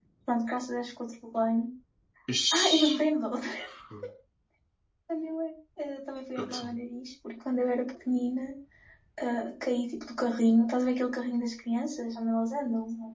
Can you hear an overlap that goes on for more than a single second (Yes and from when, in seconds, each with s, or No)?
No